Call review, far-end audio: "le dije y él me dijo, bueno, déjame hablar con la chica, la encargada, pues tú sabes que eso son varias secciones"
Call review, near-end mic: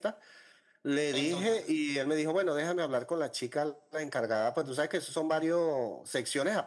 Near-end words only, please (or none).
Entonces,